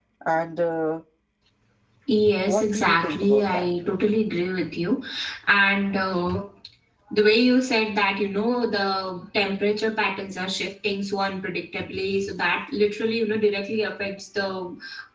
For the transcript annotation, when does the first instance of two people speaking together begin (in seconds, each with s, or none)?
2.5 s